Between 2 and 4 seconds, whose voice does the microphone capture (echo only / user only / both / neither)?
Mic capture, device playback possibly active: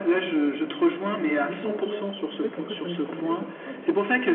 both